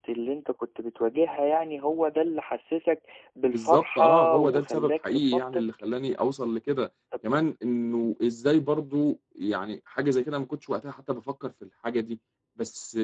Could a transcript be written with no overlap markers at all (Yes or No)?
No